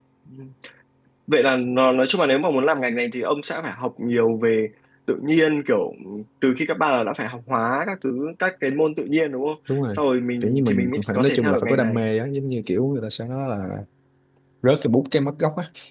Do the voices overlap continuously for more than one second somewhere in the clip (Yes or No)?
Yes